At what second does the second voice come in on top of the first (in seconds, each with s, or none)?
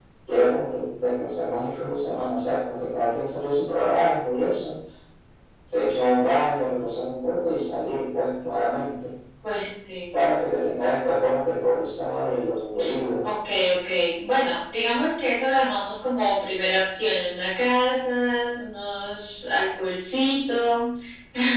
none